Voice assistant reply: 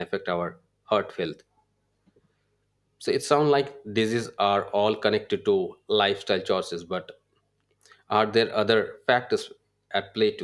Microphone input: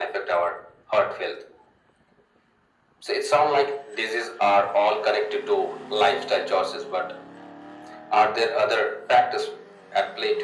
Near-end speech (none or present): none